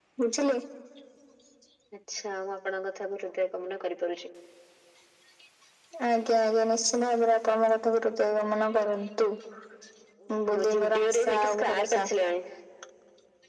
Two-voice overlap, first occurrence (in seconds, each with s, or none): 10.4 s